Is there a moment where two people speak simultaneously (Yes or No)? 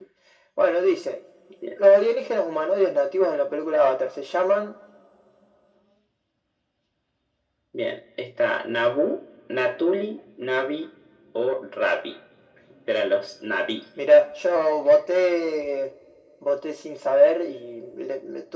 No